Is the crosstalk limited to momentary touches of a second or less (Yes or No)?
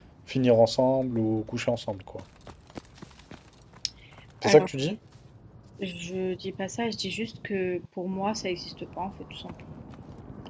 Yes